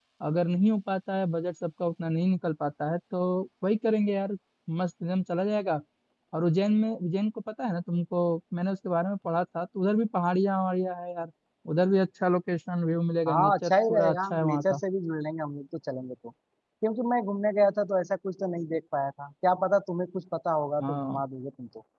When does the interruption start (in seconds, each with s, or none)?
13.3 s